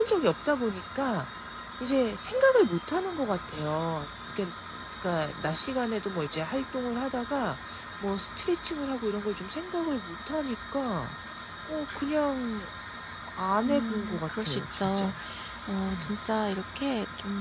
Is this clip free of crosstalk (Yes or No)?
No